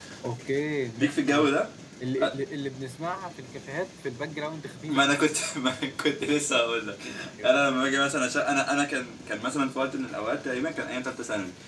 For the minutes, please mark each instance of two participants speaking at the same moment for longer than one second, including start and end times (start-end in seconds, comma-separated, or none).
none